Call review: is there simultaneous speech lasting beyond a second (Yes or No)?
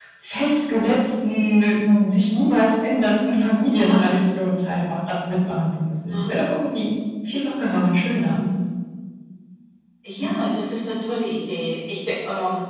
No